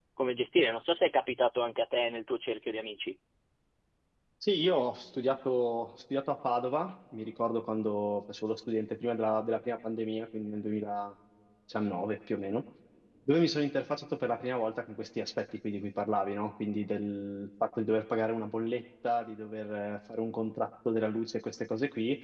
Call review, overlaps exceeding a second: none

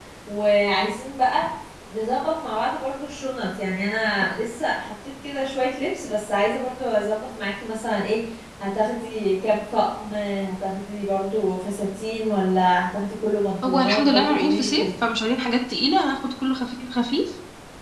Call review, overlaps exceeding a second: present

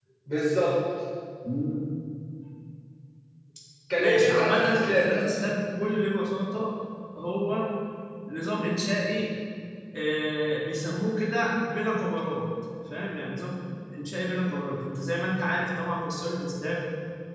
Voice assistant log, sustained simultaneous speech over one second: present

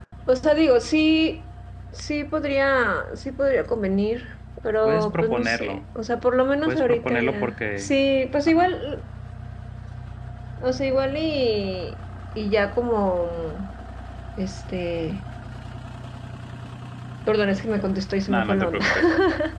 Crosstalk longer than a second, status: present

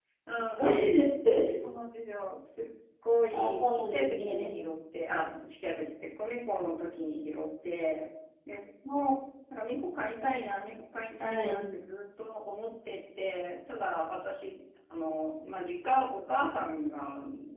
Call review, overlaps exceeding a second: present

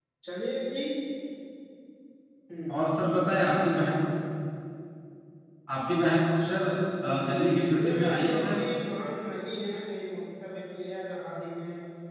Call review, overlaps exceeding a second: present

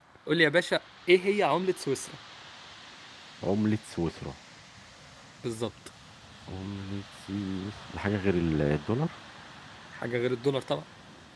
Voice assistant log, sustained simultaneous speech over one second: none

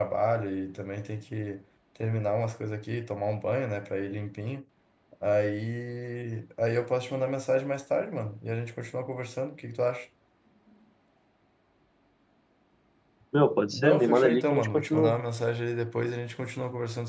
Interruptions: present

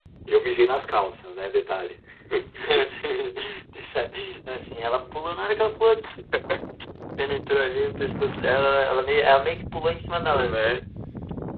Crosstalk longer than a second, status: none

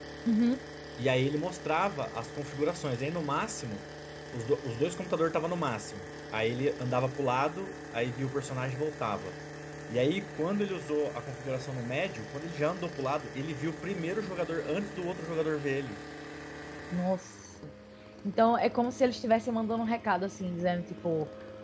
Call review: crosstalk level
none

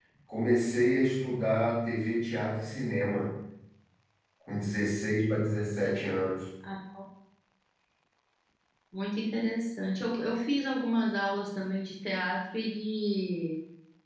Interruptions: none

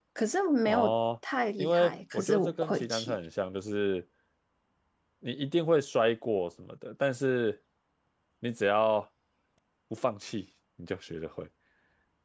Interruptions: present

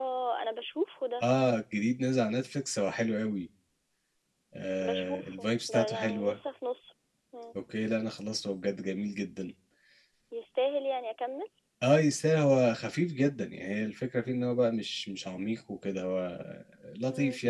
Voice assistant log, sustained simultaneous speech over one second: present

